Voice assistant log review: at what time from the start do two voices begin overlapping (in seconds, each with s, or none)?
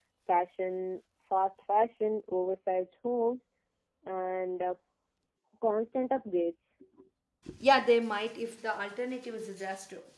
none